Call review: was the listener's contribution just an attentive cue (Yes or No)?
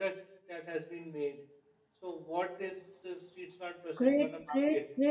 No